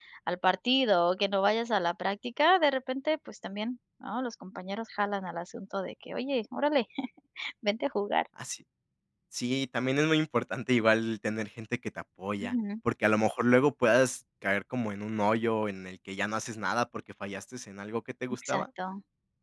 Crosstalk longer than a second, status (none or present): none